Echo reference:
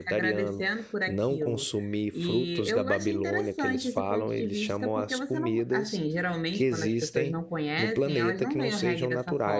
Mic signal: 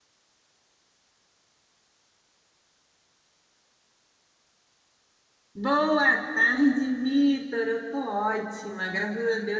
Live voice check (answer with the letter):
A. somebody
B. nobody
A